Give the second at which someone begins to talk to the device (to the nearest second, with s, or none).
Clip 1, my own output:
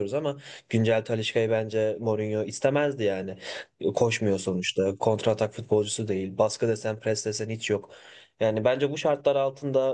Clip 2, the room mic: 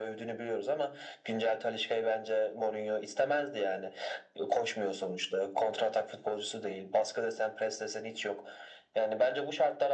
none